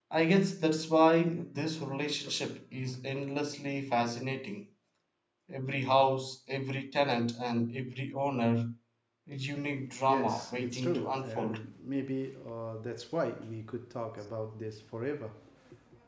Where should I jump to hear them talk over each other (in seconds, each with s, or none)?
10.1 s